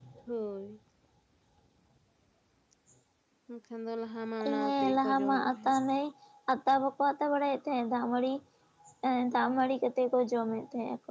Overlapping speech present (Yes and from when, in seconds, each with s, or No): Yes, from 4.4 s